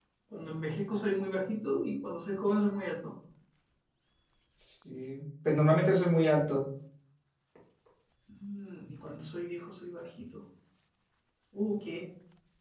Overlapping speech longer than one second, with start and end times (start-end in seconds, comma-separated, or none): none